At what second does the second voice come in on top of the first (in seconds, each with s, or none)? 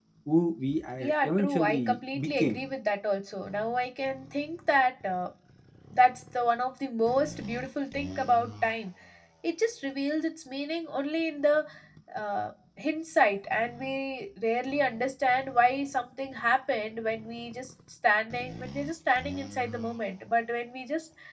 1.0 s